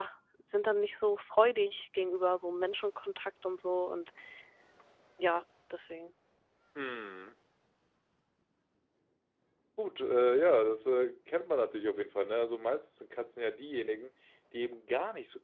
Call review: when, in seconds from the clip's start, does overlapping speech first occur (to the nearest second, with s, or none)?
none